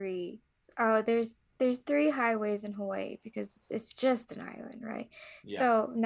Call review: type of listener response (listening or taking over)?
listening